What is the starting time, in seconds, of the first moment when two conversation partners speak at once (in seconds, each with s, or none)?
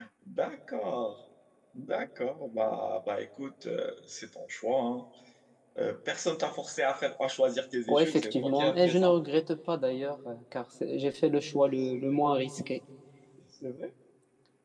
7.9 s